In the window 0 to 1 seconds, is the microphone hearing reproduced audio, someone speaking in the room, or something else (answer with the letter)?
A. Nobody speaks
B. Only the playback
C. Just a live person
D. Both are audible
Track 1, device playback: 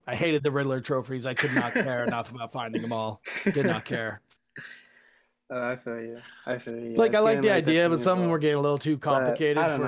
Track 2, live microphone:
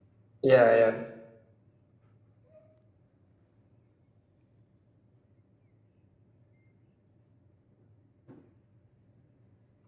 C